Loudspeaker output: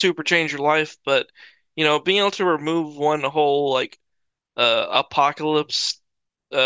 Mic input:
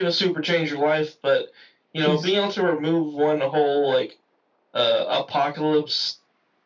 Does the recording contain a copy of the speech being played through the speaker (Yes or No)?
Yes